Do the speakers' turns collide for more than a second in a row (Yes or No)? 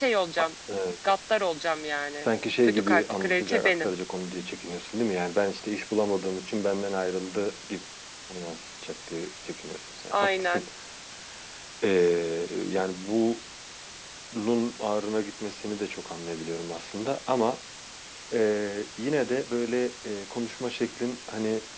Yes